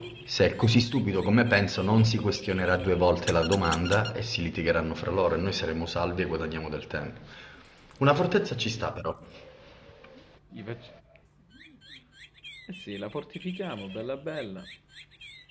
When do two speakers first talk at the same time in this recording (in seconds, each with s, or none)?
none